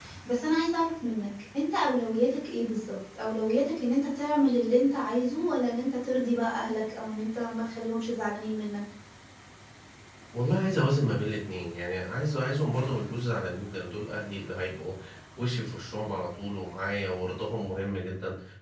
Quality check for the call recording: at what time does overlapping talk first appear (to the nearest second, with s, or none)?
none